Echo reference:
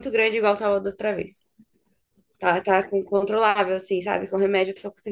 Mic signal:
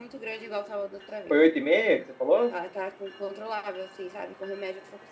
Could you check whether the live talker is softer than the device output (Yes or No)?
No